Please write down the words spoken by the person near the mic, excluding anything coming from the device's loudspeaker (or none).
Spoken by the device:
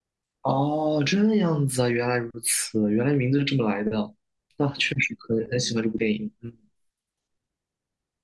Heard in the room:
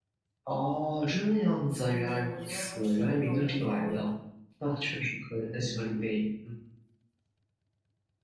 那个电影，我觉得还挺有韵味的。